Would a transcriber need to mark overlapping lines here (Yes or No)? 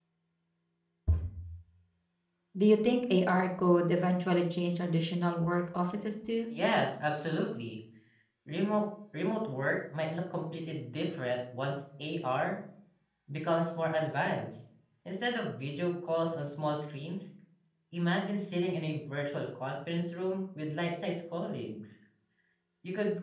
No